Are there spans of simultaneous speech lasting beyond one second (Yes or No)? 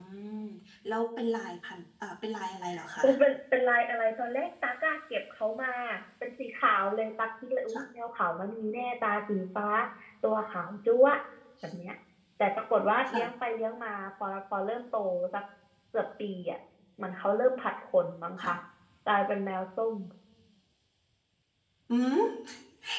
No